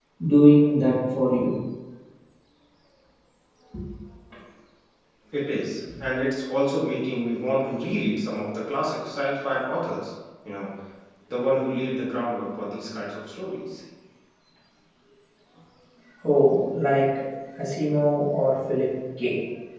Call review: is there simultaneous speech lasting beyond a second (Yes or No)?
No